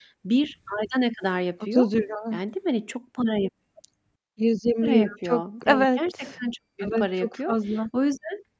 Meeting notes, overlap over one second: present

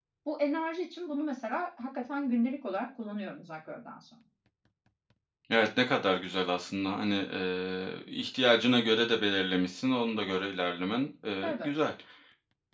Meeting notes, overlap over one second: none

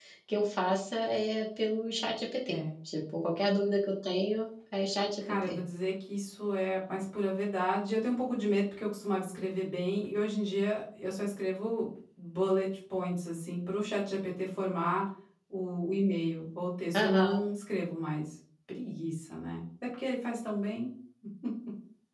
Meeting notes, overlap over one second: none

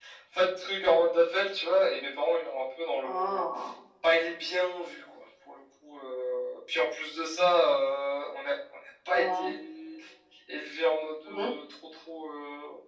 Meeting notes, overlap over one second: none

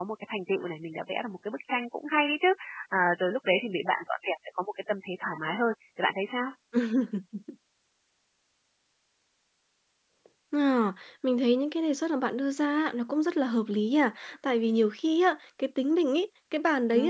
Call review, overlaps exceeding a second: none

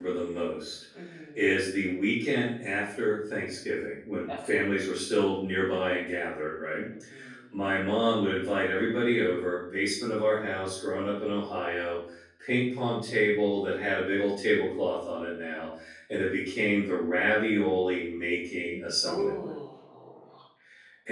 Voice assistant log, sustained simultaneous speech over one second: none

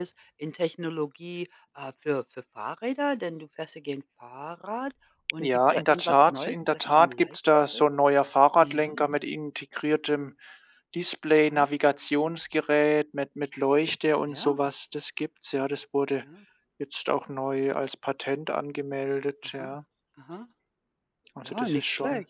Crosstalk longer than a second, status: present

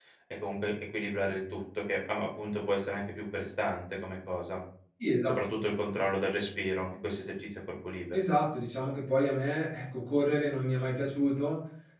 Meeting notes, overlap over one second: none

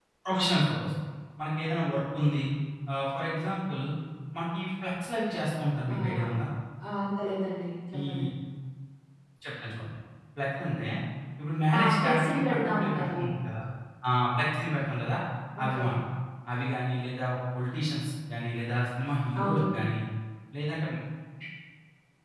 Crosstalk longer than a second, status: present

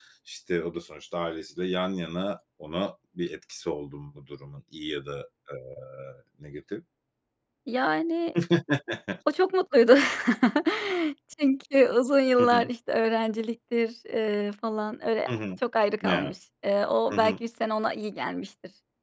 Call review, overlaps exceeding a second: none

